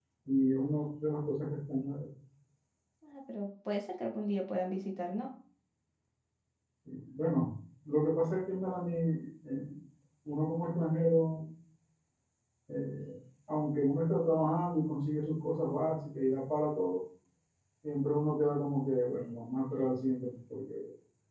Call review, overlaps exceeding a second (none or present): none